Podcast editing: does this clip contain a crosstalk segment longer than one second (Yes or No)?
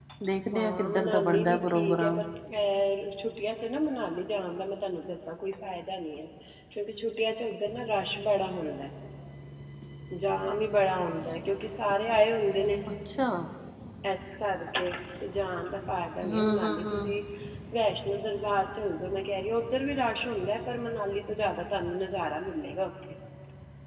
Yes